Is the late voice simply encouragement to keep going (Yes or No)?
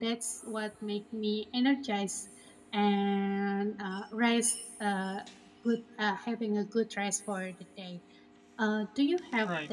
Yes